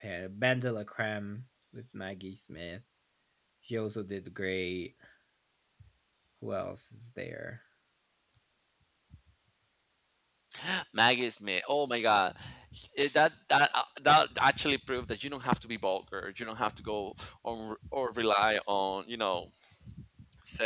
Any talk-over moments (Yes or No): No